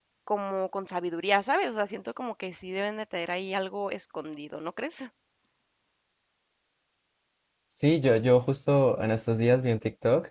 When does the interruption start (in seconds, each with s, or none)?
none